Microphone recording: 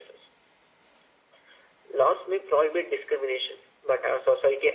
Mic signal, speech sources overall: echo only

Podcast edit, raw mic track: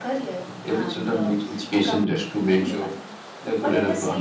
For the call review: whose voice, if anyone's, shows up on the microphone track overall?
echo only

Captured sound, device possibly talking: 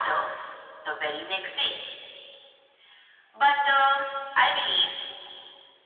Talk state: echo only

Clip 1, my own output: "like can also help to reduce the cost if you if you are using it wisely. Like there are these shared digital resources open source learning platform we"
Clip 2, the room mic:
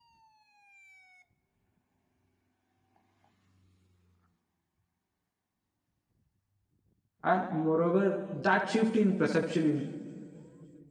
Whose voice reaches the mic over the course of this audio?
user only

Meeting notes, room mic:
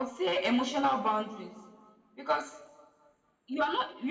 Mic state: echo only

